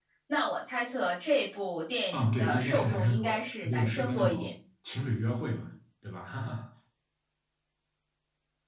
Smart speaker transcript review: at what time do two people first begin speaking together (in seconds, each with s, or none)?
2.1 s